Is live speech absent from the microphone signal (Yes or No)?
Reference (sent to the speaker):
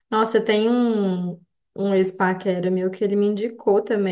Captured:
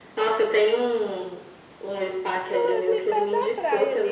No